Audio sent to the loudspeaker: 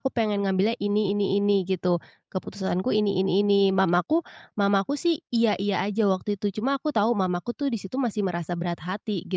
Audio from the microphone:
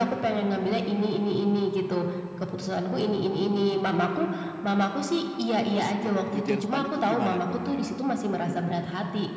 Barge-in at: 6 s

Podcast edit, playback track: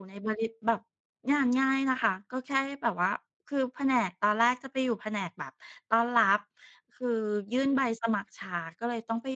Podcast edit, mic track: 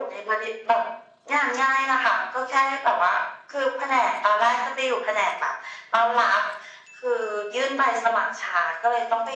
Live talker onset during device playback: none

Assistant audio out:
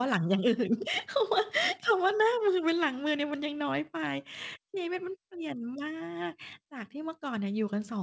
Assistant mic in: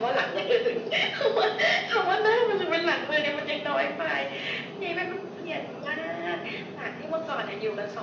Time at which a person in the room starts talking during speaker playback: none

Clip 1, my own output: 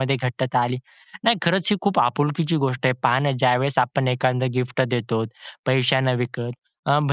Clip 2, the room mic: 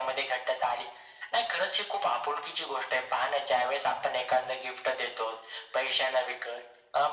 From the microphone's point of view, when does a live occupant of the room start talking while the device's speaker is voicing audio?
none

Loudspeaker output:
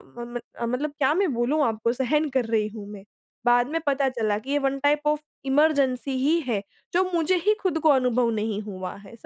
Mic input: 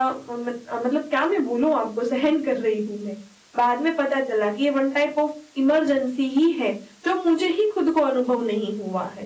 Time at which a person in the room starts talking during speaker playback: none

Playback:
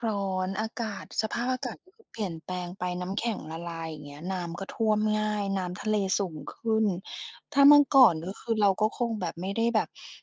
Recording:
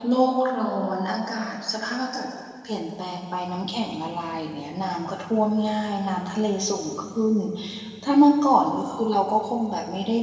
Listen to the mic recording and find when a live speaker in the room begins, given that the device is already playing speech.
none

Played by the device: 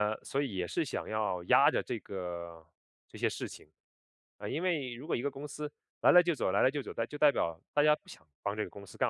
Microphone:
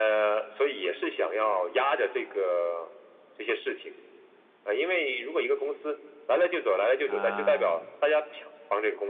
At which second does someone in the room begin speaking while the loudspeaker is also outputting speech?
7 s

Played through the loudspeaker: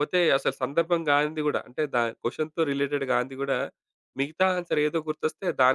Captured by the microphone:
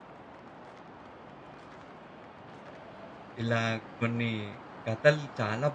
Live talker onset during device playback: 3 s

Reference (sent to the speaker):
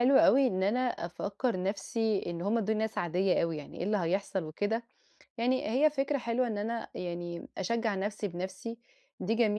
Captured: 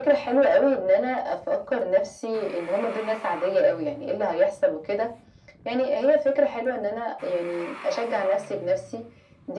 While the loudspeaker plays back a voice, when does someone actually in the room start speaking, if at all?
none

